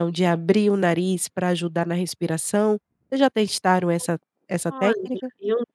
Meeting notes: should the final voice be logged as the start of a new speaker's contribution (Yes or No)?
Yes